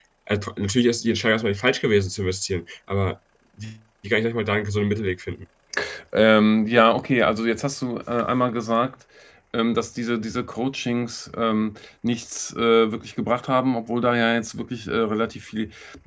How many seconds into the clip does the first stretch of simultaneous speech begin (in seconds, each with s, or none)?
none